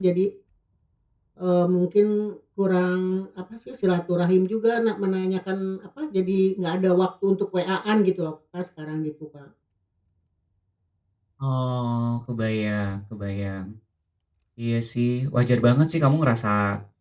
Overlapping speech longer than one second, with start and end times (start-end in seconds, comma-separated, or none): none